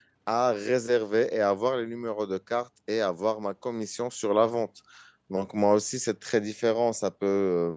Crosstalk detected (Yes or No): No